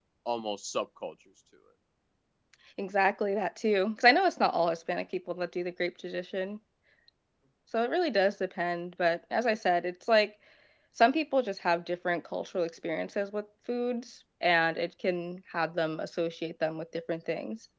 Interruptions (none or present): none